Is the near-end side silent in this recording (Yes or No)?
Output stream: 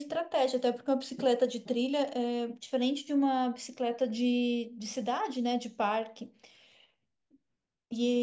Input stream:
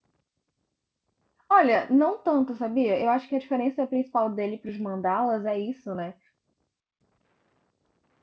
No